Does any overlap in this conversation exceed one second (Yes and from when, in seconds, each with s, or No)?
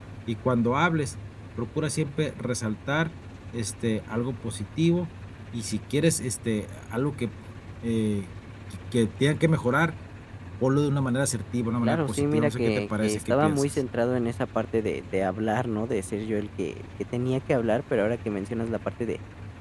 Yes, from 11.8 s